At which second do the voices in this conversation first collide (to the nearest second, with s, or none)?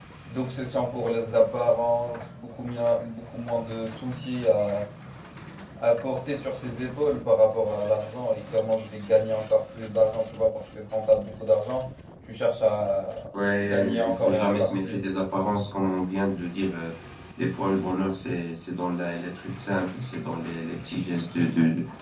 14 s